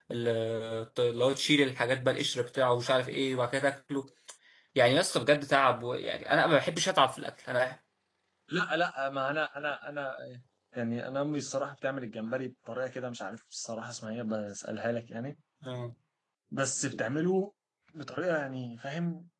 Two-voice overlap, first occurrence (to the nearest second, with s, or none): none